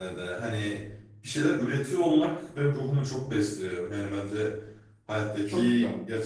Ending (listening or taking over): listening